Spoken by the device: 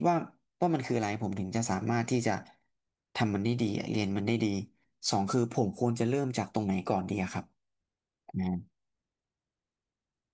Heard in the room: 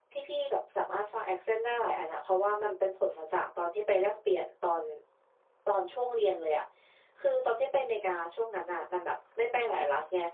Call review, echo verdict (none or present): none